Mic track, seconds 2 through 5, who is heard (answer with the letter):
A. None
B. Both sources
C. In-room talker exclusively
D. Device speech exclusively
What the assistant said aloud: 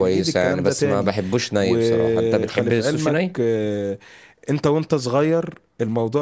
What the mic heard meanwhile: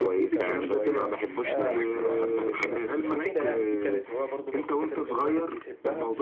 B